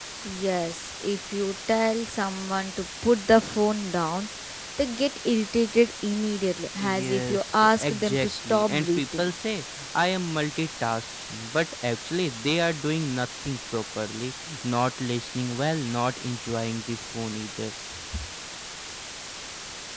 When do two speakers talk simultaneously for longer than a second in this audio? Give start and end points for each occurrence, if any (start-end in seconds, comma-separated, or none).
6.8-9.3